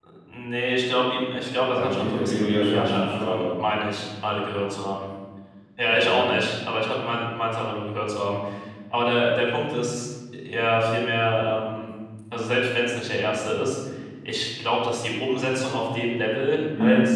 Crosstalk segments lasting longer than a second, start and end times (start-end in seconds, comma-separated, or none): 1.7-3.6